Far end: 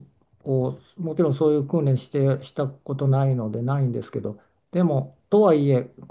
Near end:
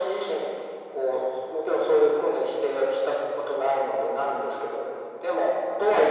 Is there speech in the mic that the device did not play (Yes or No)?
No